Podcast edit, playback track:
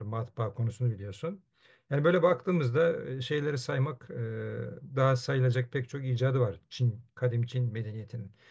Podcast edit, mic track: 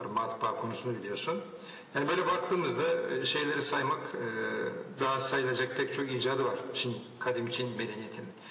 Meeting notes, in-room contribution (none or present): none